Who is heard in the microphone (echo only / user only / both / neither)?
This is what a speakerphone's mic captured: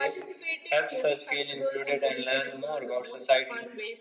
echo only